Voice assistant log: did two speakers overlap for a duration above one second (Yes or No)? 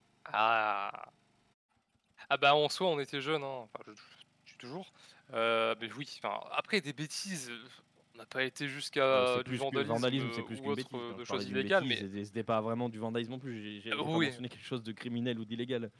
Yes